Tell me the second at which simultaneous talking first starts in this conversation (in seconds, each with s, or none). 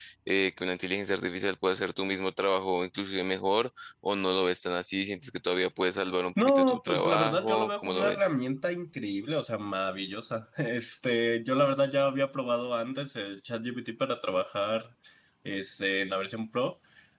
6.4 s